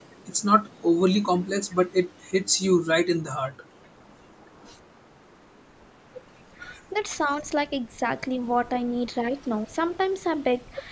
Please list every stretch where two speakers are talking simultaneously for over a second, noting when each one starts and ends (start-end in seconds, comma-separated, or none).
none